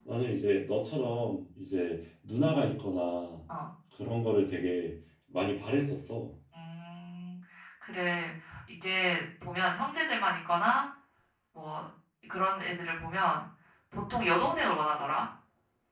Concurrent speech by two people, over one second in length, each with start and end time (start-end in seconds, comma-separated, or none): none